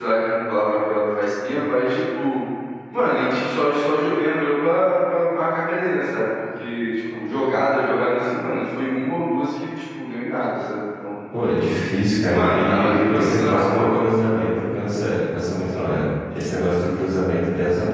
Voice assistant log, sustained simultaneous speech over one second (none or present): present